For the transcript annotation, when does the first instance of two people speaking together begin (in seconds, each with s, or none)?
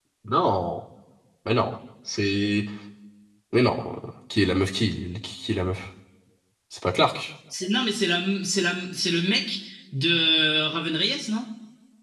none